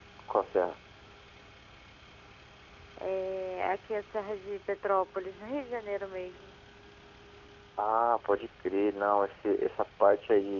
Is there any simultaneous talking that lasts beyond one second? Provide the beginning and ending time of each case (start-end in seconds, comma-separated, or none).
none